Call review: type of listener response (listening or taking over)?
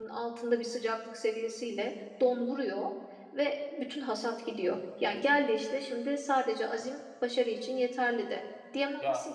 listening